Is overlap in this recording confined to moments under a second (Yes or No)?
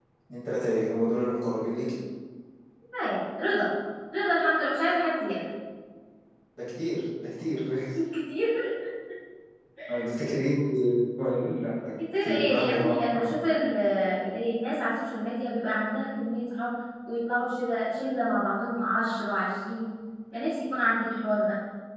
No